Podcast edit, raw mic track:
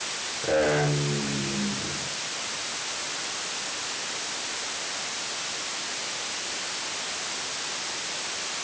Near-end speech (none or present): present